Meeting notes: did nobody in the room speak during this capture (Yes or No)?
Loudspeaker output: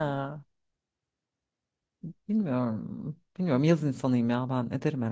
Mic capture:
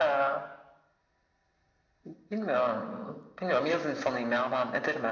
Yes